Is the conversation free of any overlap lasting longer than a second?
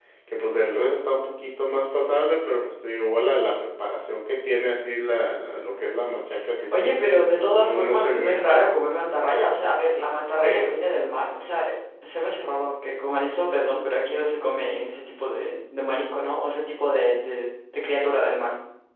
No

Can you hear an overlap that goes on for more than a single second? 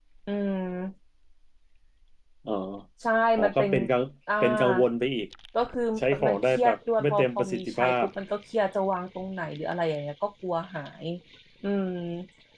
Yes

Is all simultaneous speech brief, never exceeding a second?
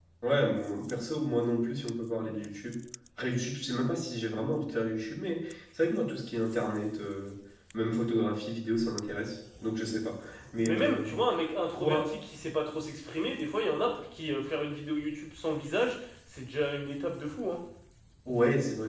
Yes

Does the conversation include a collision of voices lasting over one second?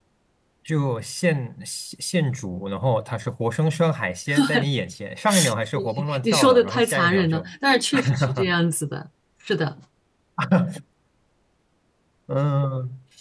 Yes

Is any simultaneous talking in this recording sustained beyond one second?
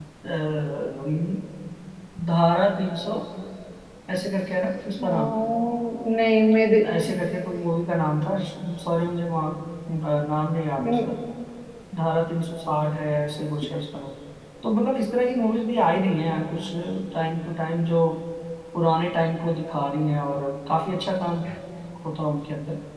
No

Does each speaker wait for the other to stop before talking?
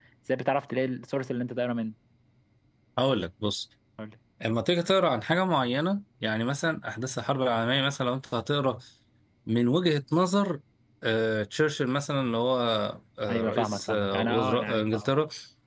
No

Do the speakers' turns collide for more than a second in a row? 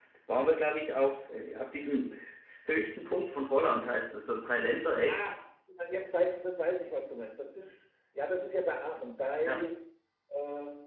No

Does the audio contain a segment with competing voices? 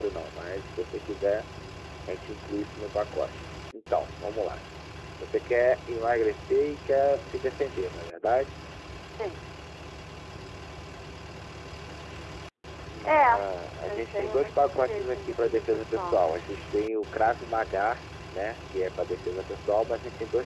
Yes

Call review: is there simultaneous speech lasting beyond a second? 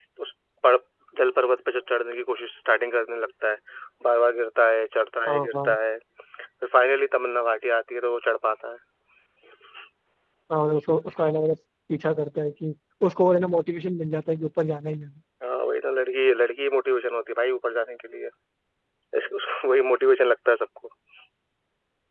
No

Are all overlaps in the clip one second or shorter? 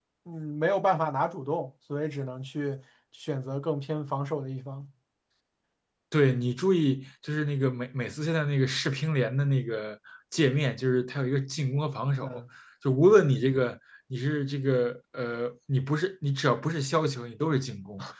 Yes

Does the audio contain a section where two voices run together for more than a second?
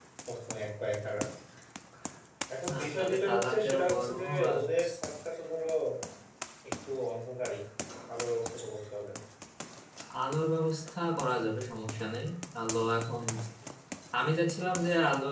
Yes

